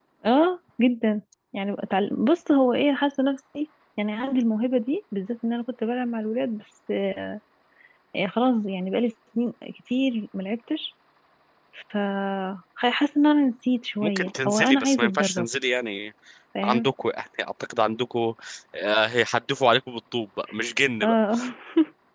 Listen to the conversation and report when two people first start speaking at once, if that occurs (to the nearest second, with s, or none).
14 s